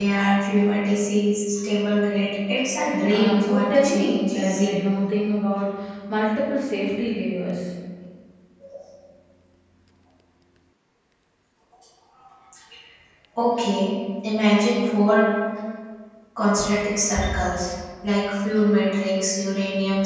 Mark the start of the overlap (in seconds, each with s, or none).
2.9 s